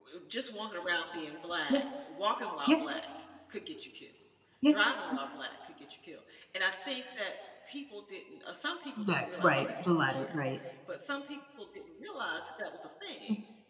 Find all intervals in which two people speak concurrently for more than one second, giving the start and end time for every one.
9.0-10.4

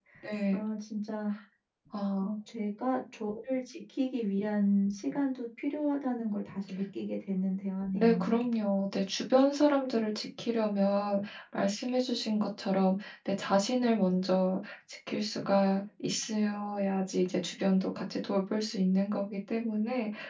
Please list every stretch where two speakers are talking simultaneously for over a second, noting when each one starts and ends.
none

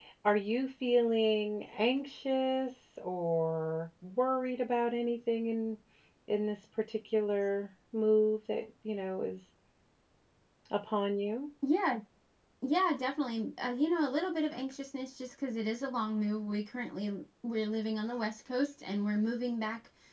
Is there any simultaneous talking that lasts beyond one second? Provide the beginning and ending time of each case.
none

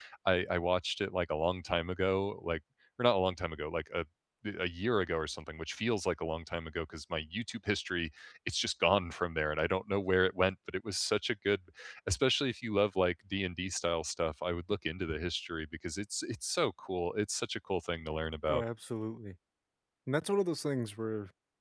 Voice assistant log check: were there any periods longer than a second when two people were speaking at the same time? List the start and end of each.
none

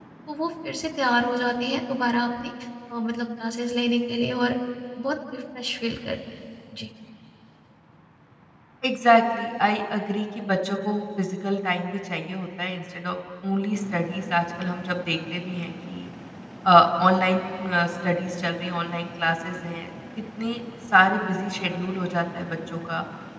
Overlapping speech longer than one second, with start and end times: none

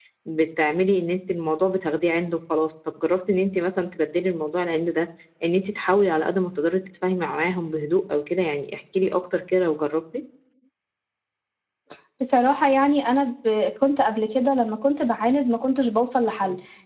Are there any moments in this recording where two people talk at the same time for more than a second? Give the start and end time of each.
none

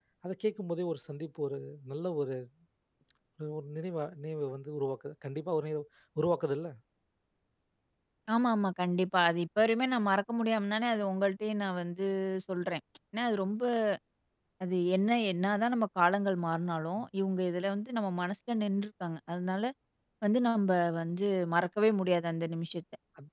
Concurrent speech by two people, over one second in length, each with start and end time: none

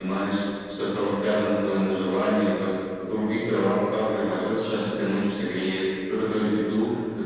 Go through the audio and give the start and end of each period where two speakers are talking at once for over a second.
none

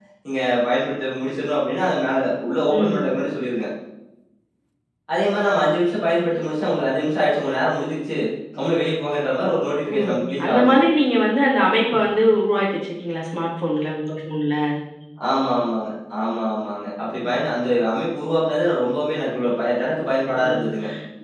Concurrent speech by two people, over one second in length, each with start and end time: none

